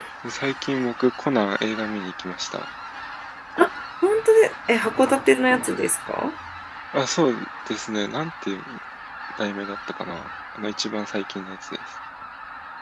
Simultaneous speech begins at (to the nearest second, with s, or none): none